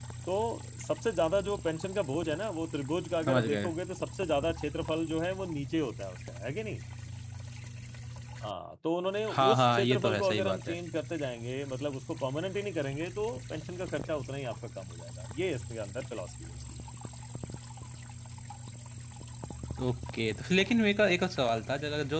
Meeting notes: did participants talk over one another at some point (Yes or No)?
Yes